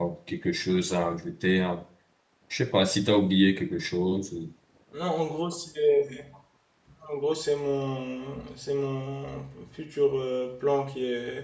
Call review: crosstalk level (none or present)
none